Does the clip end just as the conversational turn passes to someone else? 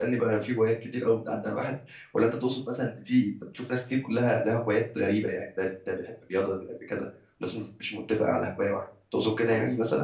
Yes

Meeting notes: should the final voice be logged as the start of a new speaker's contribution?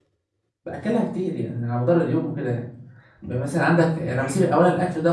No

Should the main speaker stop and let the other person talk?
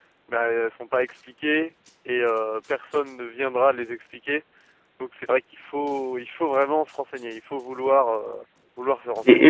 Yes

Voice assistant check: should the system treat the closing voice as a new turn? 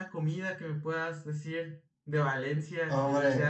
Yes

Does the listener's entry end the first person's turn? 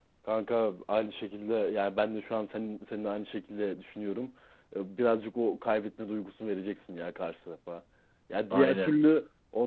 No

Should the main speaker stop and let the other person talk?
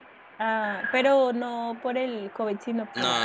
Yes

